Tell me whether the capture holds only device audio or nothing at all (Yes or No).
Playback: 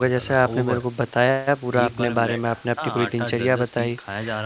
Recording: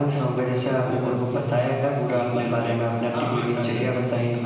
Yes